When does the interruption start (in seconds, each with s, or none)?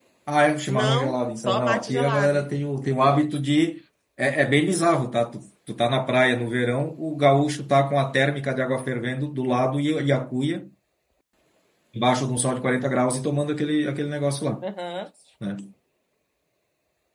0.7 s